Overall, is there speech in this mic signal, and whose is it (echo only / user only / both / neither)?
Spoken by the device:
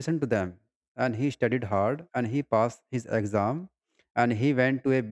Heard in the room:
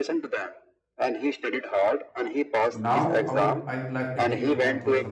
both